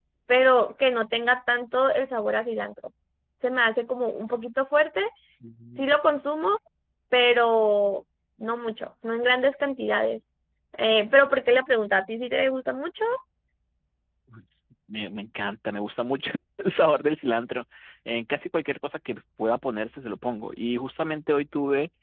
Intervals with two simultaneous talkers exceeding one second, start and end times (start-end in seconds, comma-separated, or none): none